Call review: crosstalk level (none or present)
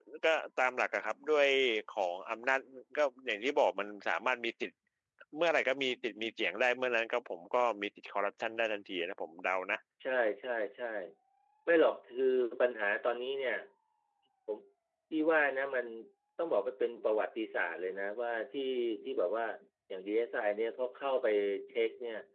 none